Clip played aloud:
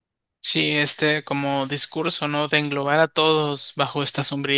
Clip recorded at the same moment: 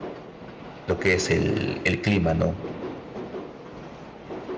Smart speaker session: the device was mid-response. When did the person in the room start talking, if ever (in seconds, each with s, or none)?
0.9 s